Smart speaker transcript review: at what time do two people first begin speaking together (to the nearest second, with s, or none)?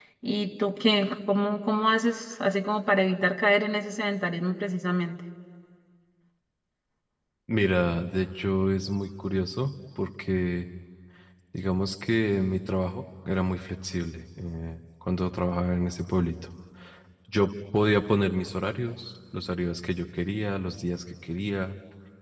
none